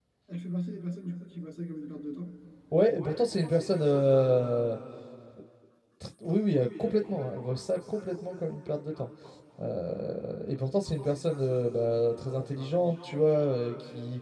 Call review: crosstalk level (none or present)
none